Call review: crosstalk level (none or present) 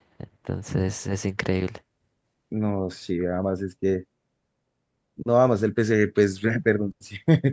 none